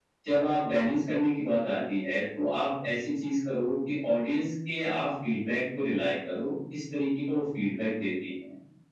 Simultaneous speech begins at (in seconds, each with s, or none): none